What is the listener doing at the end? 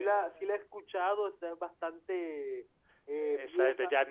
taking over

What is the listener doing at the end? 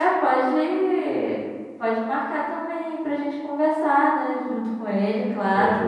taking over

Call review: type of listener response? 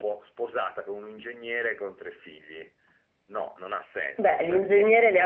taking over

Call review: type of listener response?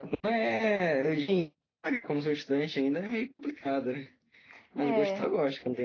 listening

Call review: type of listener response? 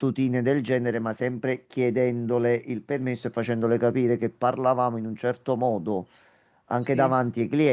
listening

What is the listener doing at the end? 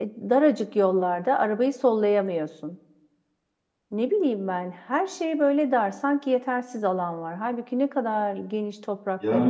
taking over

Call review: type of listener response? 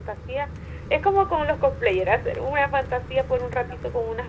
listening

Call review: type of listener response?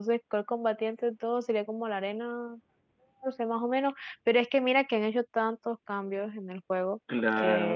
listening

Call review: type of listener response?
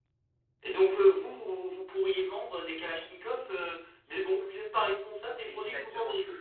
taking over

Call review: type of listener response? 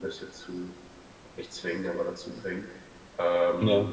listening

